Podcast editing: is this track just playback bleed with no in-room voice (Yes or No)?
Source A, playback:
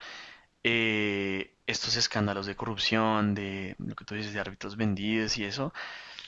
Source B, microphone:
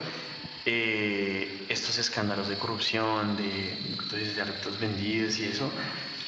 Yes